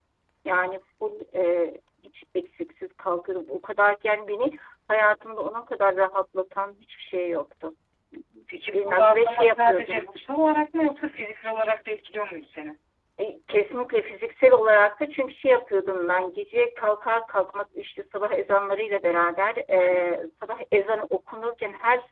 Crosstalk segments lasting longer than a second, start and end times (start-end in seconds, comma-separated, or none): 8.7-10.1